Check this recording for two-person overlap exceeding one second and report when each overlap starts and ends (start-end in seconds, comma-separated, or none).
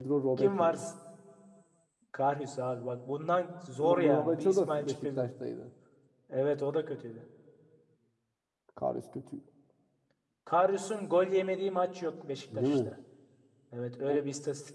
3.8-5.3